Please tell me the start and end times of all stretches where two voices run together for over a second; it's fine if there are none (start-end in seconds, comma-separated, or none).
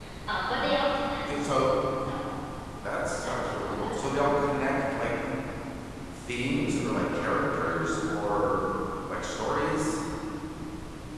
3.2-4.5